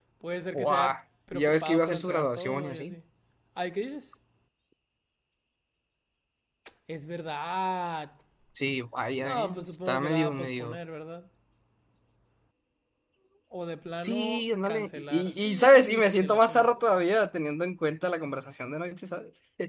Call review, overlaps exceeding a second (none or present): present